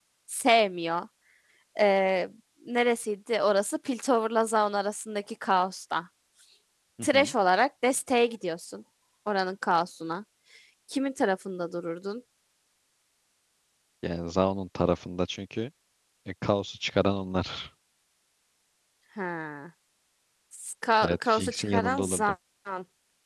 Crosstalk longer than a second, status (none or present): present